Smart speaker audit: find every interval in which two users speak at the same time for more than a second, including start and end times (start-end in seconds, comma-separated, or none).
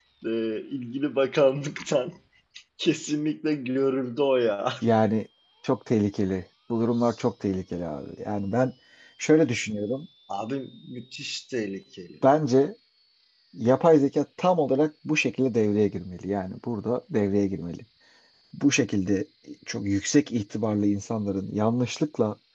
none